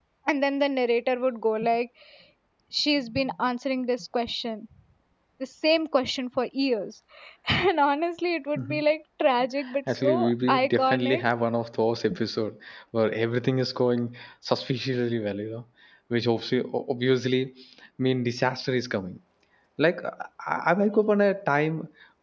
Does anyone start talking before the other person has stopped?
Yes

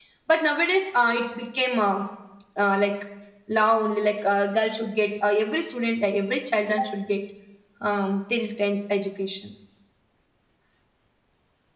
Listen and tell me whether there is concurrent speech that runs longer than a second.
No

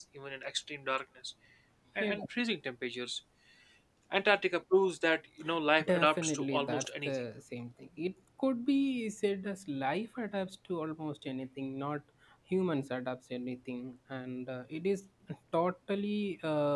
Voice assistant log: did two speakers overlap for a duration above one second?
Yes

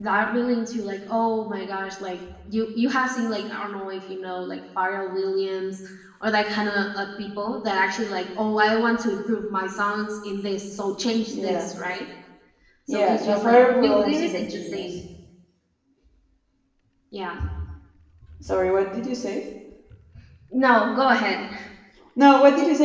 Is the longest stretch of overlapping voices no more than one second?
No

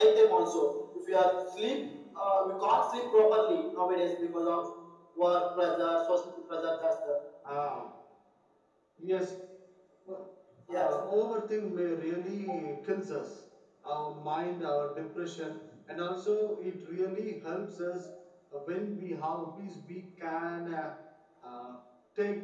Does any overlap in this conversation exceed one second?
No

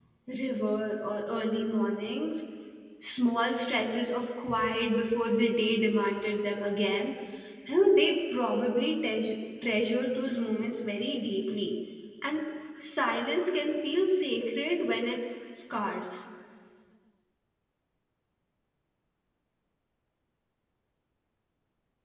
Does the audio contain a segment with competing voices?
No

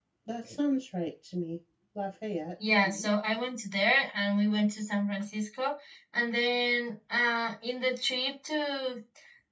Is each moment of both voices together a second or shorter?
Yes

